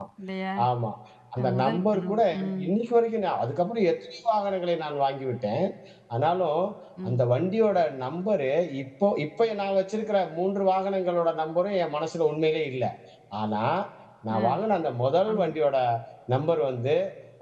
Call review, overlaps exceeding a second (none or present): present